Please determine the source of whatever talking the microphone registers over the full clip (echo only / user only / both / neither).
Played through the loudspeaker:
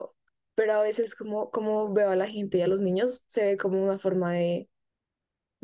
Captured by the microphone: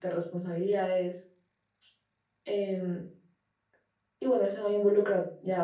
user only